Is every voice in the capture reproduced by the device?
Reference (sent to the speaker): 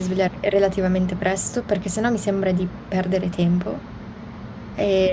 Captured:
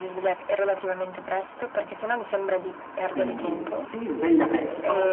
No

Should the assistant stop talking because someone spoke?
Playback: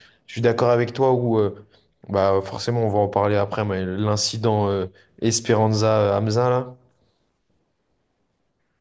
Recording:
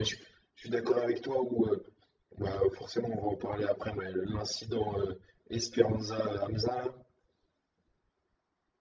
No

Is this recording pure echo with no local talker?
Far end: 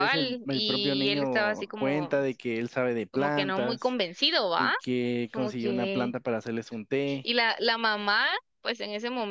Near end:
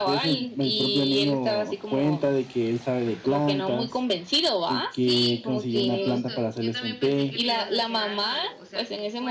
No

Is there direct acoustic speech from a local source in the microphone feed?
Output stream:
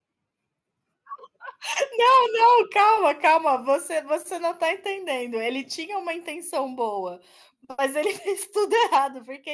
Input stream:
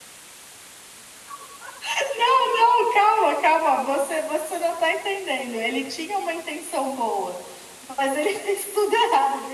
No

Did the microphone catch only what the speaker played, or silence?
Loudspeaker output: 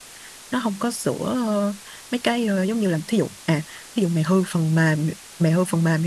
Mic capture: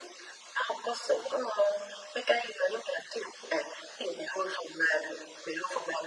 Yes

